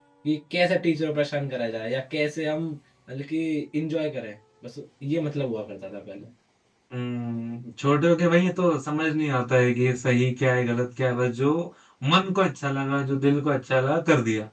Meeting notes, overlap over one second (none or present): none